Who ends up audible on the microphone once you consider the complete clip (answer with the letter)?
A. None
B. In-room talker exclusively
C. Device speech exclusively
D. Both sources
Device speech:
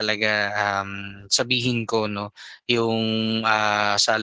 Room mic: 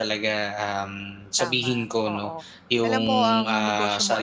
D